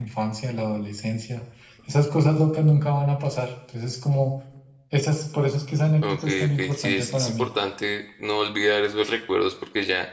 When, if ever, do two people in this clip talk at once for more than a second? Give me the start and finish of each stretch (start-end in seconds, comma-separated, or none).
6.1-7.5